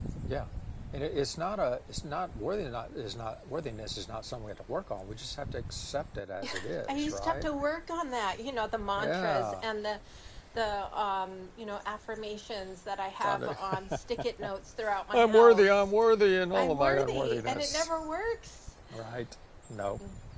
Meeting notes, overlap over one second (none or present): present